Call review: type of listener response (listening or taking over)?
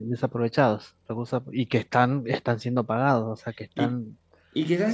taking over